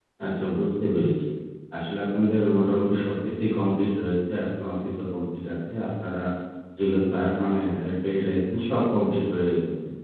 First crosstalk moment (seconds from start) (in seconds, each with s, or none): none